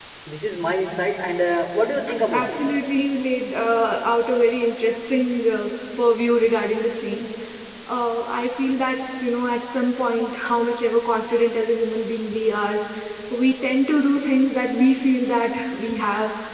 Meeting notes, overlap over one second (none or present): none